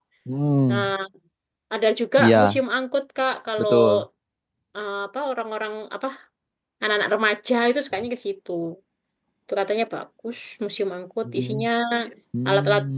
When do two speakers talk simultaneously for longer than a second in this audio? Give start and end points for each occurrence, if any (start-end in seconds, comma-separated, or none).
none